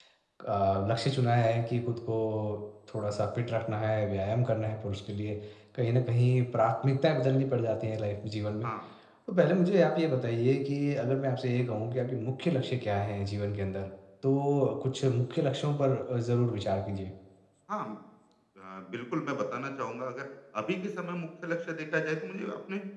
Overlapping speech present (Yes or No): No